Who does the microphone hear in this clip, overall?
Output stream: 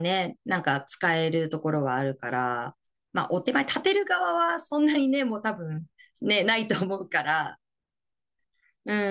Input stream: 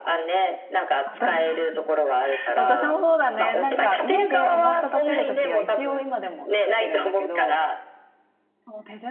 both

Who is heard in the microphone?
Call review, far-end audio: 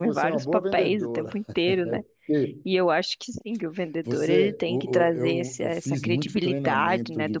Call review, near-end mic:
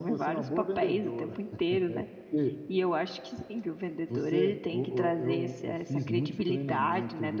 echo only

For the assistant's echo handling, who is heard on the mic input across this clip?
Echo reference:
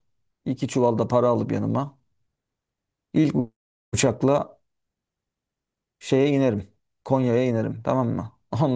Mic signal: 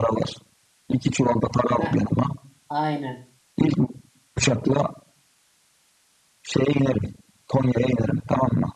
both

